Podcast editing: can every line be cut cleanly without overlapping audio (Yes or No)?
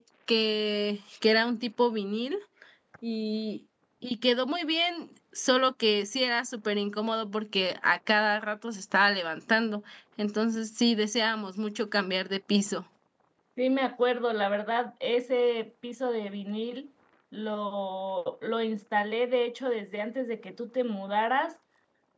Yes